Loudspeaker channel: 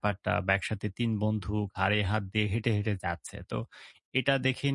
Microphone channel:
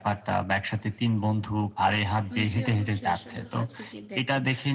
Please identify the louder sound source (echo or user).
echo